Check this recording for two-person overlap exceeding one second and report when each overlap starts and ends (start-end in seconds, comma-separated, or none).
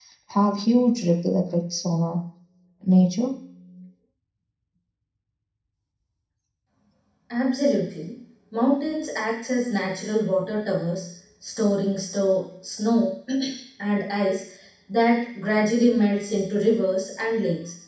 none